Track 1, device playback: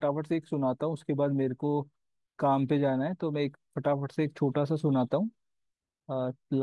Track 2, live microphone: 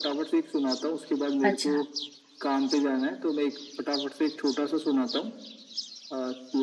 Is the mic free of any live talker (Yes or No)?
No